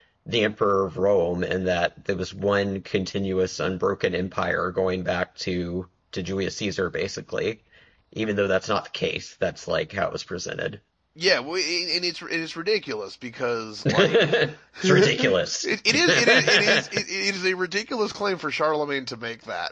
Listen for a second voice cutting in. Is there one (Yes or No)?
Yes